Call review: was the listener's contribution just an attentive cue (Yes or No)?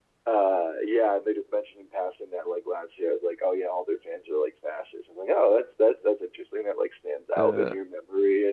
Yes